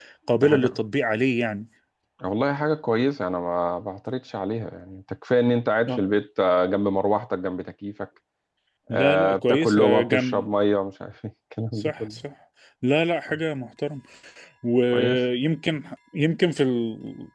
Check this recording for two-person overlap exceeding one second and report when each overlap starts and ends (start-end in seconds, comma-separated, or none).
8.9-10.4